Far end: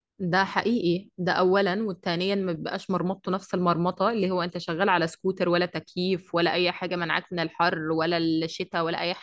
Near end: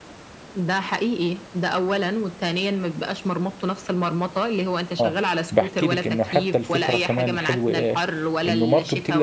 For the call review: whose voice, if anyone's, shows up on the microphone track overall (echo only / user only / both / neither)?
both